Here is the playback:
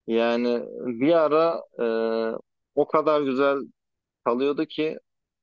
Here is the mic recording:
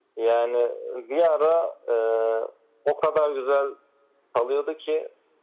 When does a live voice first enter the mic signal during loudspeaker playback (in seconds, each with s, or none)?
none